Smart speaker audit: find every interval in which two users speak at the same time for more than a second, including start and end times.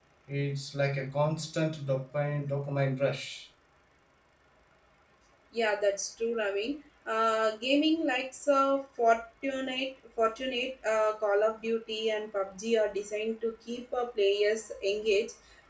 none

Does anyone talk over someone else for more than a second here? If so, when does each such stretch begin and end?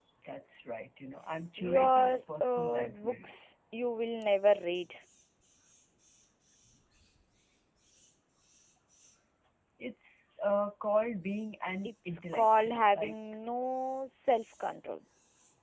1.6-3.3, 11.8-13.1

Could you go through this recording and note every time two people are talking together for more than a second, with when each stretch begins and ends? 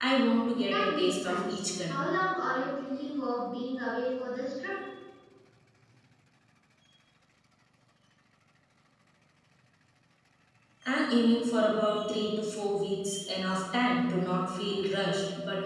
0.7-1.9

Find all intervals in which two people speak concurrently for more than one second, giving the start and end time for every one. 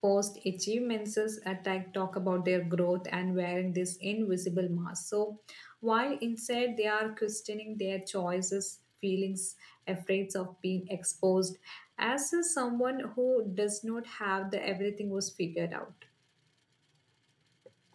none

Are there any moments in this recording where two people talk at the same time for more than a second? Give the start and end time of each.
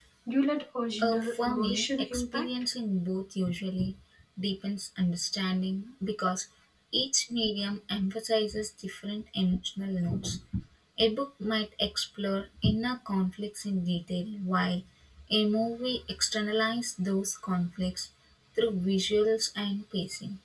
1.0-2.5

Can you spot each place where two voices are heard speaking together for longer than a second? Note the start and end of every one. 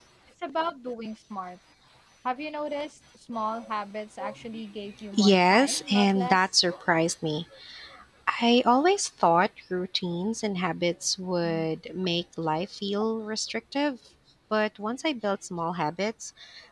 5.1-6.4

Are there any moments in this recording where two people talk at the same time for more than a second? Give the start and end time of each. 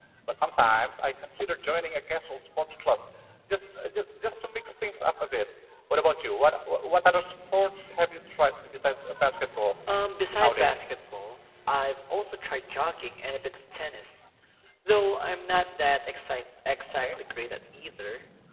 none

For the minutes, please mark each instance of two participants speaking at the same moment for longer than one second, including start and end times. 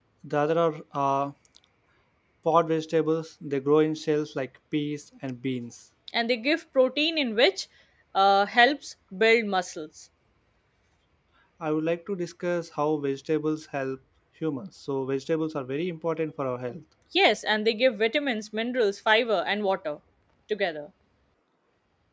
none

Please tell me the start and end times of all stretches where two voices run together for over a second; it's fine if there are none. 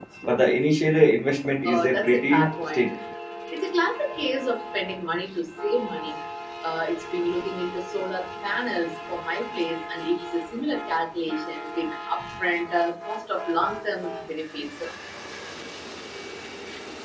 1.6-2.9

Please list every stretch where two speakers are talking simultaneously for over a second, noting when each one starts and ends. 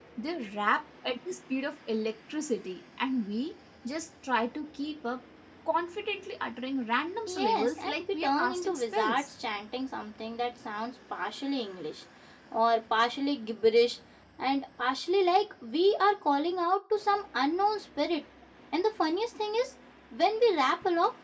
7.3-9.2

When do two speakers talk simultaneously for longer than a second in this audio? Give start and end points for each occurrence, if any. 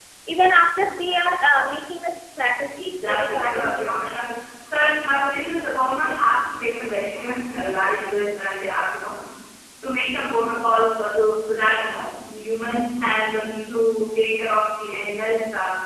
2.8-4.2

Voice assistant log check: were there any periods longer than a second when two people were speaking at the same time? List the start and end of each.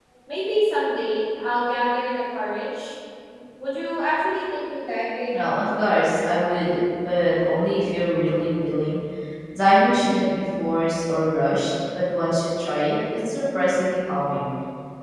none

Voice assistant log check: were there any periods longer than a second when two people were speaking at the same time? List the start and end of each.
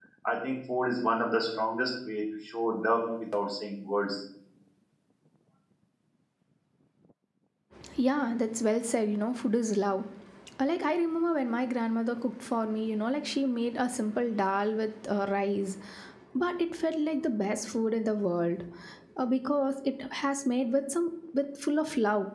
none

